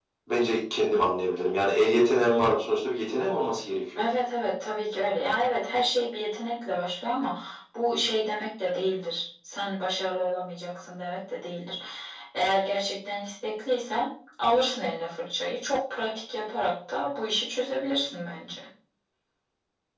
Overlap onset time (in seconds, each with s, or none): none